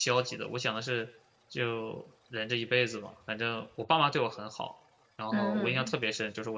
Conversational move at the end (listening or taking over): listening